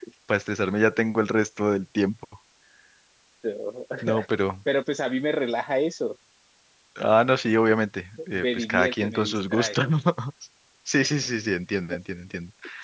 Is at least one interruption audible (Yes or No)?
Yes